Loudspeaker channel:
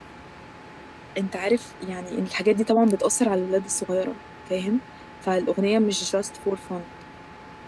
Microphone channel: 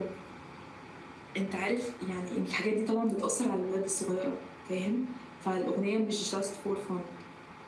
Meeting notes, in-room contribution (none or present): none